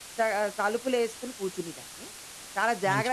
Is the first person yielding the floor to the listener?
No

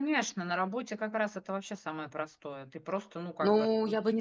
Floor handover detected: Yes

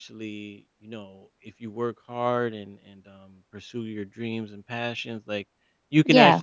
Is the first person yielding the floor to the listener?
No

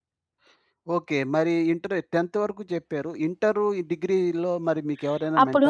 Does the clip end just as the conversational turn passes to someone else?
Yes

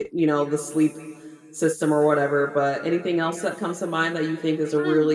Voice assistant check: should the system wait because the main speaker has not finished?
No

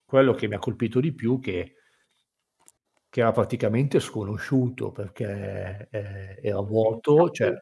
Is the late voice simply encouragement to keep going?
Yes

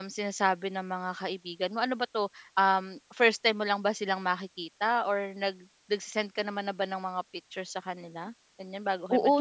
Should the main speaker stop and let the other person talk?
Yes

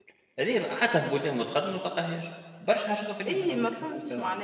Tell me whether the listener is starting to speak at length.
Yes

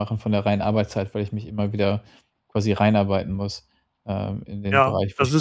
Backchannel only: No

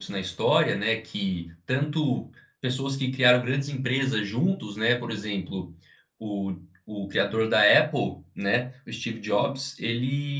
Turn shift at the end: No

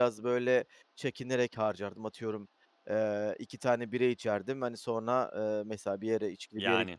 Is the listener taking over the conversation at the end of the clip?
No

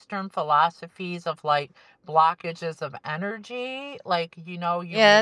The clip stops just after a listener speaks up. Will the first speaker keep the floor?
No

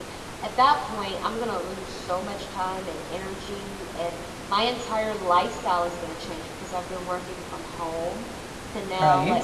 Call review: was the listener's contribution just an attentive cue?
Yes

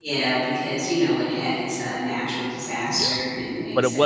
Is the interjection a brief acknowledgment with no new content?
No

